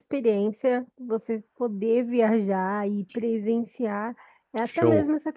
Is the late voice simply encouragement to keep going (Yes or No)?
Yes